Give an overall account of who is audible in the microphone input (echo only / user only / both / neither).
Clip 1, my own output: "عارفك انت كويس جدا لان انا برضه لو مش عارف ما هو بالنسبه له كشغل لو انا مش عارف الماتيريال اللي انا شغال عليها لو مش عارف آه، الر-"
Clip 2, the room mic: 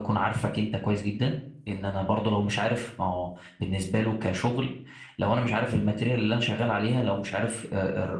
echo only